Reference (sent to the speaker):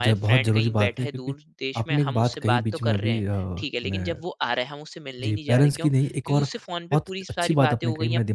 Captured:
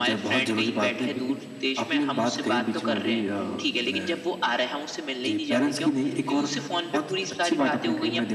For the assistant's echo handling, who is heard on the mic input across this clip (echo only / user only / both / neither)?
echo only